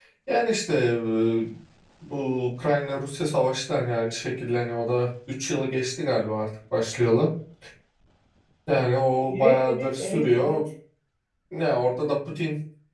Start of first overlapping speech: 9.3 s

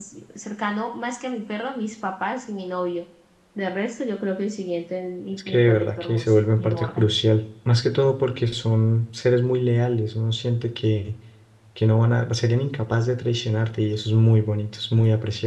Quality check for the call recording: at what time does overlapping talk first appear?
5.3 s

